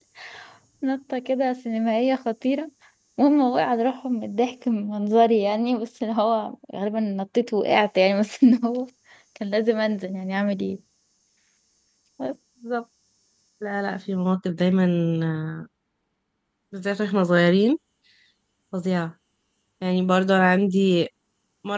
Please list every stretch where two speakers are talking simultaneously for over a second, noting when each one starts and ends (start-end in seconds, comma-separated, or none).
none